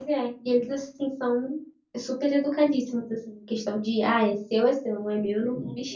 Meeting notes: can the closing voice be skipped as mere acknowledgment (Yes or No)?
No